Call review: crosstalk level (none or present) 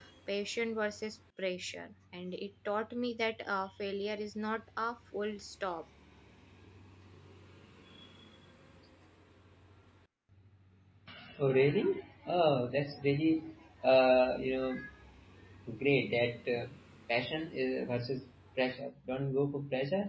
none